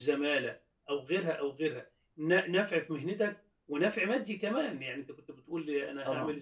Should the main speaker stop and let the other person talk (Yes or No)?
No